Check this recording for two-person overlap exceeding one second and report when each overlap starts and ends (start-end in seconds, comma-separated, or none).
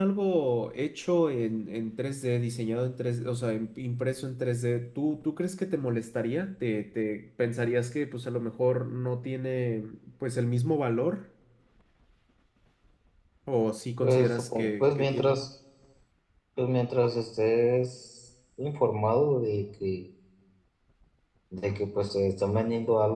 14.0-15.4